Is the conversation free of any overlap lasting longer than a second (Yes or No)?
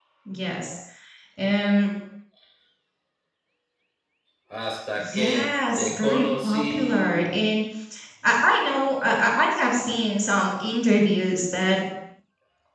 No